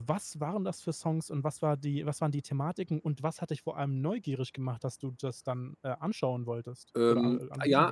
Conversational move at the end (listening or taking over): taking over